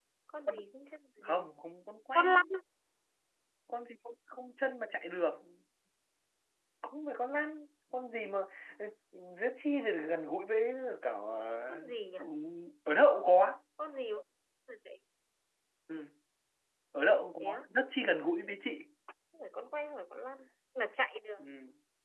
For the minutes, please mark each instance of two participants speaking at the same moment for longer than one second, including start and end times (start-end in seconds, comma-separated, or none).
none